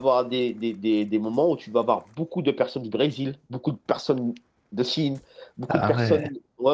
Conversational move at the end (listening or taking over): listening